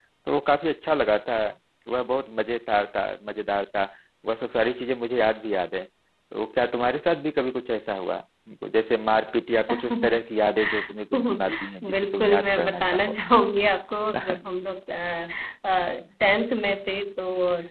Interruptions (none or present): present